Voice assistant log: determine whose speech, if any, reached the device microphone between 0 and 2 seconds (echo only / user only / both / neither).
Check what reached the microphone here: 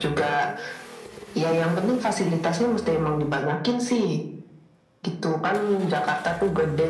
echo only